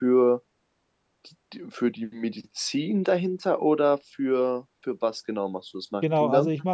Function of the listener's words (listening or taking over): taking over